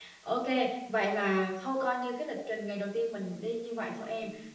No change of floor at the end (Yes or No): Yes